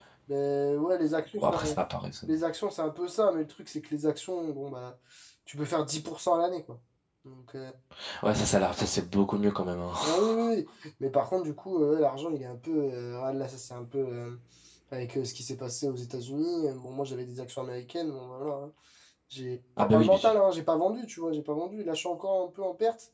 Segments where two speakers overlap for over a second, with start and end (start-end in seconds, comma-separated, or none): none